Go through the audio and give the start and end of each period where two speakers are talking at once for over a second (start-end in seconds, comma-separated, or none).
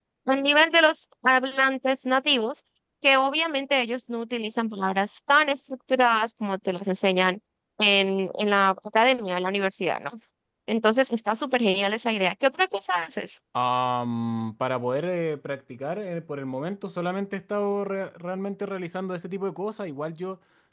none